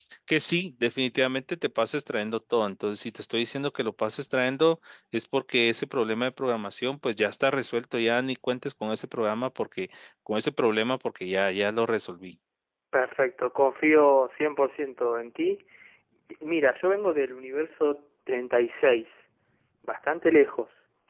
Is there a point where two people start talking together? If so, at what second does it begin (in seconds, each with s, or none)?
none